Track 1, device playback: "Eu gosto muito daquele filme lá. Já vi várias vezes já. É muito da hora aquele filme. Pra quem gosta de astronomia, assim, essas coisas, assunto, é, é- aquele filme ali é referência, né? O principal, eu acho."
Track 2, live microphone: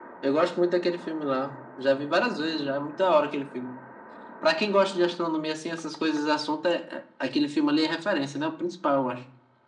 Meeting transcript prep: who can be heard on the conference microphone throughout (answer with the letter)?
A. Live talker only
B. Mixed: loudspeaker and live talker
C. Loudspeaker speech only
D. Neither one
C